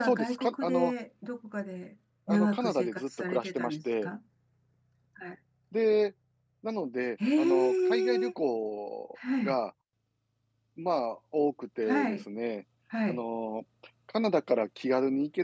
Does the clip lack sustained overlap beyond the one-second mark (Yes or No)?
No